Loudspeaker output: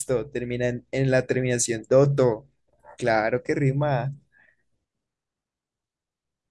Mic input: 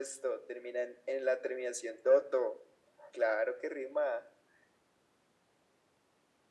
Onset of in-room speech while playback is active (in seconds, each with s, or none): none